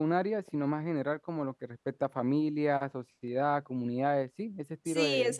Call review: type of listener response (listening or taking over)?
taking over